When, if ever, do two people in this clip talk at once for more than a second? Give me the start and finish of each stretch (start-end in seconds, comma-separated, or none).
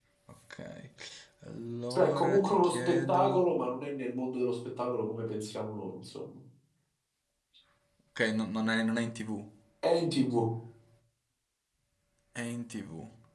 1.9-3.4